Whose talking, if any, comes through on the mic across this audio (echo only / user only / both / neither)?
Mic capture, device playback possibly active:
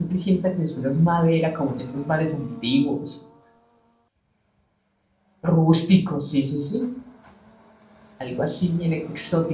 user only